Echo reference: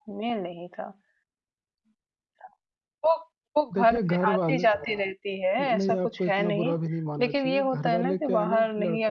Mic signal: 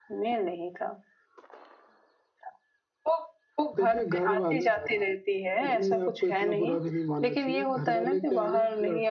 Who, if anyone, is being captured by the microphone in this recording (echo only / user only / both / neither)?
echo only